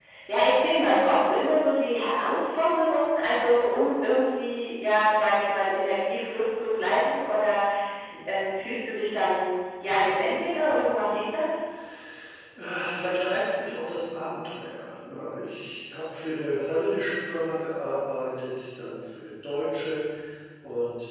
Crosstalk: none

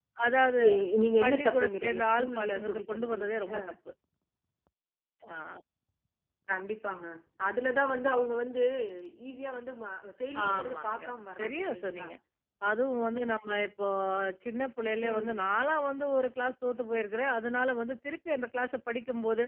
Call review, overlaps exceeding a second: present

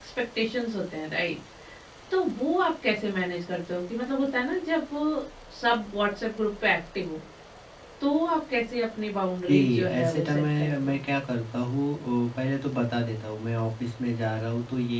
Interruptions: present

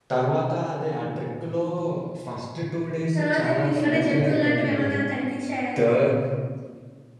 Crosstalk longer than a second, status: present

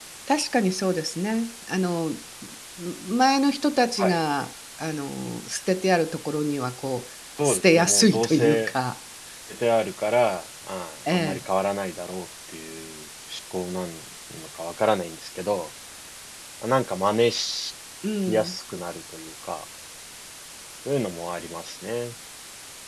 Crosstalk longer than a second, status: present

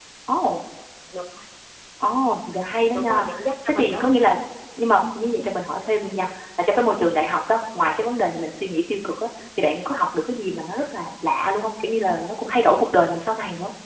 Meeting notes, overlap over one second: none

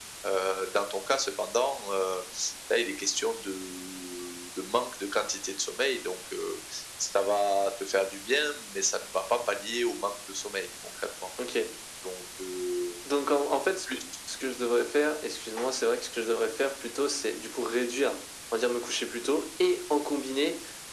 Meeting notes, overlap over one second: none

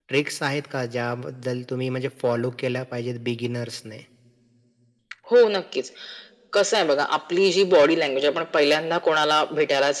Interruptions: none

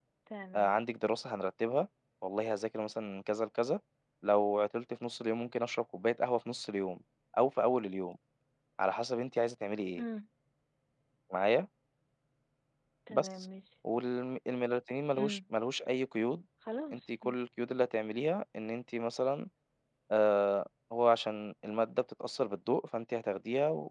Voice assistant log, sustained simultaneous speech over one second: none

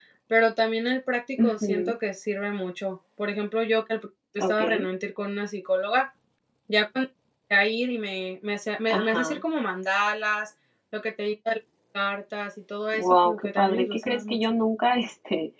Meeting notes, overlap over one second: present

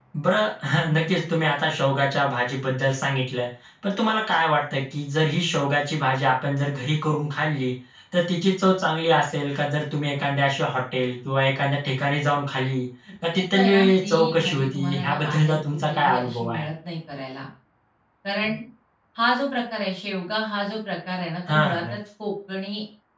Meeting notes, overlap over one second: present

